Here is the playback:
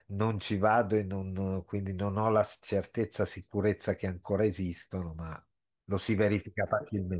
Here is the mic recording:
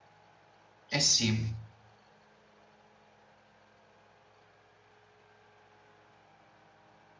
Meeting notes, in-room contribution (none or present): present